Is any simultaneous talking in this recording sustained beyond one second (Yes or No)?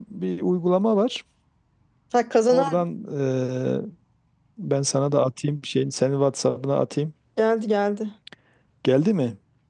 No